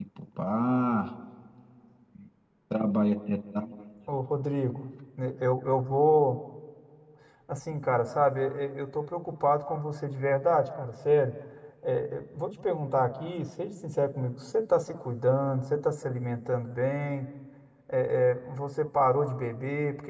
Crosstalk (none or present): none